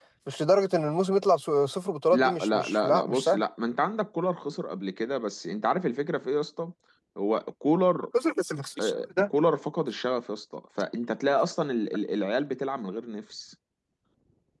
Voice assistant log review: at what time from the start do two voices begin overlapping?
2 s

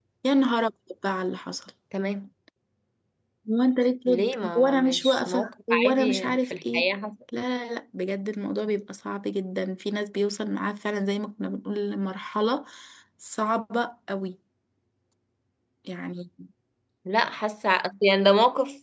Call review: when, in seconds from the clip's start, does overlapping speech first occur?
4 s

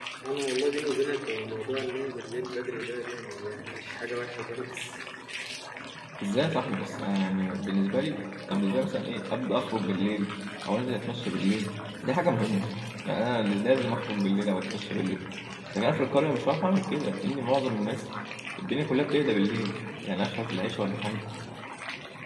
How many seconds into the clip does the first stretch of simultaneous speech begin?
none

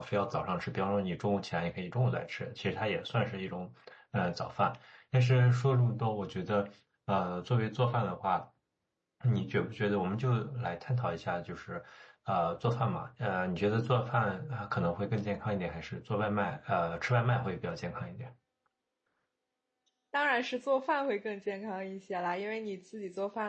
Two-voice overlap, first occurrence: none

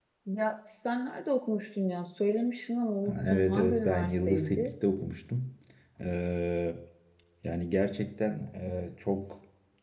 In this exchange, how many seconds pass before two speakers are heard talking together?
3 s

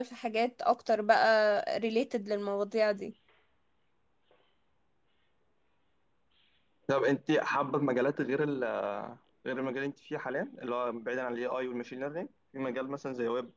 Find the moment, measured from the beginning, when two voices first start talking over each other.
none

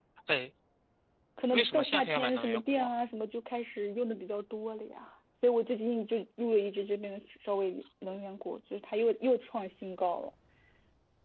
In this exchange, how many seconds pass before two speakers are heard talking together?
2 s

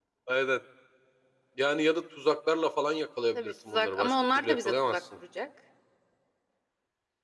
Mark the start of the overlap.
3 s

